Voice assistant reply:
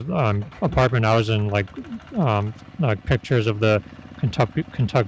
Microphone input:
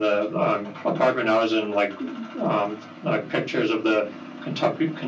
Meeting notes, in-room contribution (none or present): none